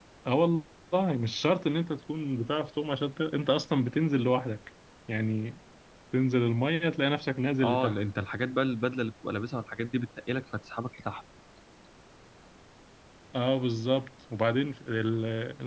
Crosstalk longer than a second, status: none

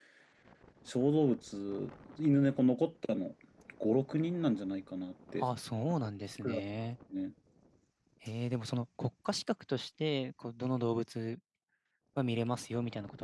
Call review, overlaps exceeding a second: none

